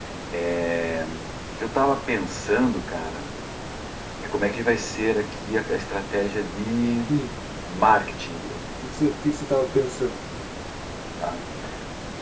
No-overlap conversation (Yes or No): Yes